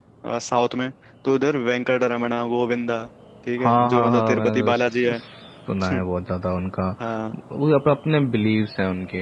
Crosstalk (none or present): present